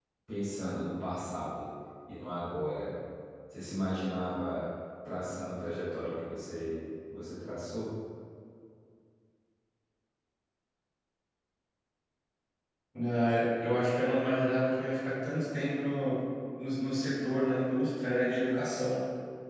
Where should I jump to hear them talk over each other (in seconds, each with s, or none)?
none